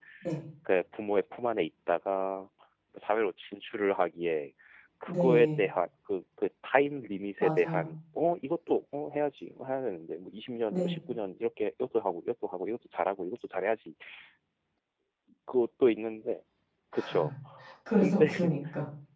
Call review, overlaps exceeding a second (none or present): none